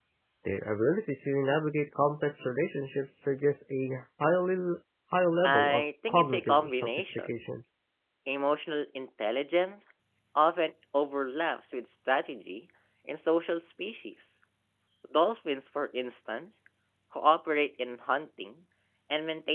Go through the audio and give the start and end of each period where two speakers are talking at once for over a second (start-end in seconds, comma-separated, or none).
5.4-7.3